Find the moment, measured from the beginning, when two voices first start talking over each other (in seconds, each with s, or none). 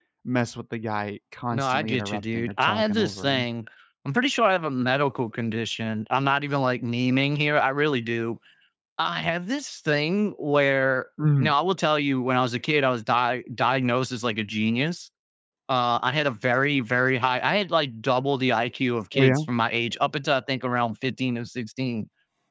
1.5 s